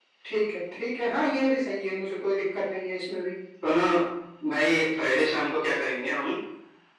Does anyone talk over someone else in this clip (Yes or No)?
No